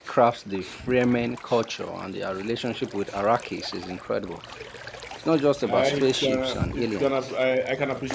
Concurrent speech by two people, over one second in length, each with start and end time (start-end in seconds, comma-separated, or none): 5.8-7.1